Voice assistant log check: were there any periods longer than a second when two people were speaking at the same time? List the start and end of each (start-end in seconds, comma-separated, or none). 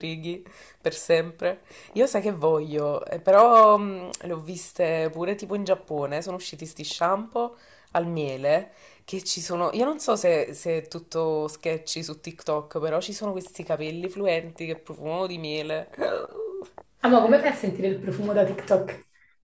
none